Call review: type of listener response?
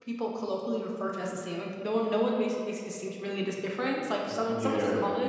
listening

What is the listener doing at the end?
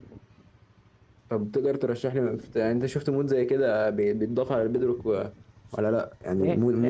listening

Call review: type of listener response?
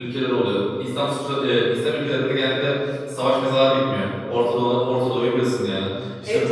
listening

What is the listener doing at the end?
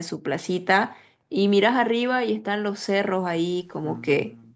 listening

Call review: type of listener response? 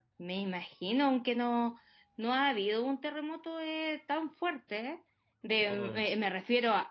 listening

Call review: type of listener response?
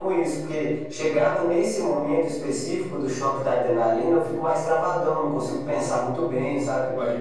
listening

